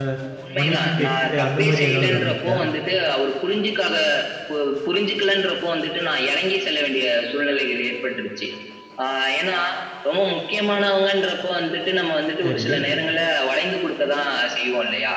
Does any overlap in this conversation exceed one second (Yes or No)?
Yes